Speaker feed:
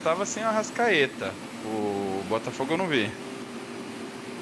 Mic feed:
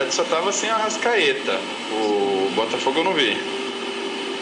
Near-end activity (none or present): present